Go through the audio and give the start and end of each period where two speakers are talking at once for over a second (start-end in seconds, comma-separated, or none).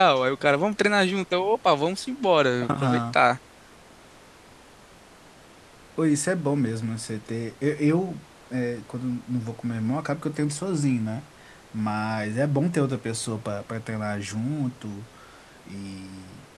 none